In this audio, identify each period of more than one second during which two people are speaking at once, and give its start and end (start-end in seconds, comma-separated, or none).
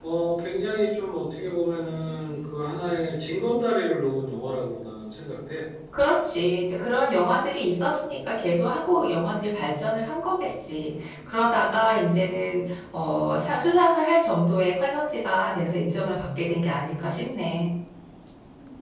none